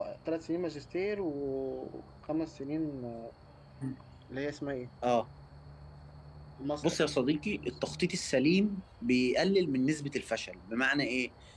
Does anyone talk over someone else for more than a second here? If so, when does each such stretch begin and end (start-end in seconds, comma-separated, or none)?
none